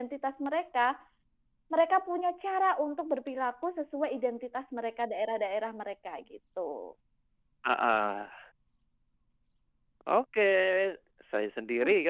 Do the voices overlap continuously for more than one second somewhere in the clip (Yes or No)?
No